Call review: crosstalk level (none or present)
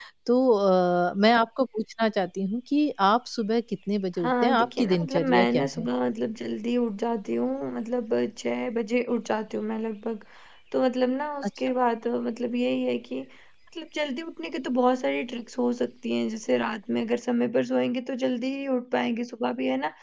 present